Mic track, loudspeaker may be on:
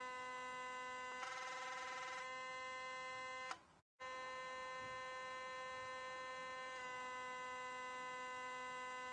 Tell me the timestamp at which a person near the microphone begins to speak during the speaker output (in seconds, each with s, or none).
none